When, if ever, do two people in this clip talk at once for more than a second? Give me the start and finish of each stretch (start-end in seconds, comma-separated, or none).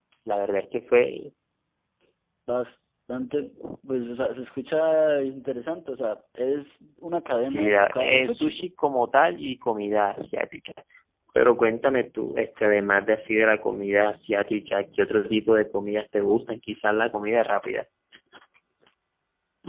7.4-8.6